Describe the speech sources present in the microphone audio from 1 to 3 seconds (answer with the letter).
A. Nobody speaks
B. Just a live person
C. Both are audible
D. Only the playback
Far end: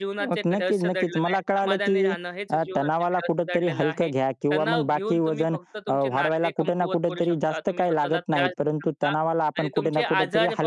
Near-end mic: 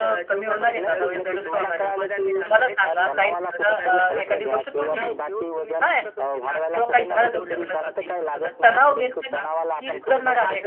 C